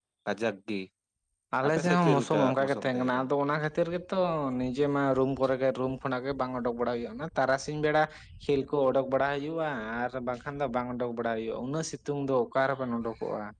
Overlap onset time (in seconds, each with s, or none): 1.6 s